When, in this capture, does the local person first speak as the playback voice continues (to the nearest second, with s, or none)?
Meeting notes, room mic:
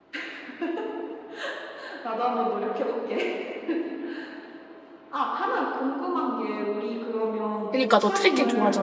8 s